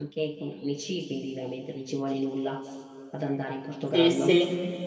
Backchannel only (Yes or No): No